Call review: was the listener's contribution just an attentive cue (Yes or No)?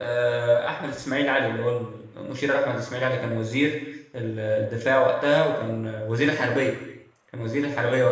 Yes